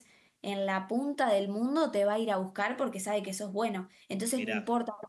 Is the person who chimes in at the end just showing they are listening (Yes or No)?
Yes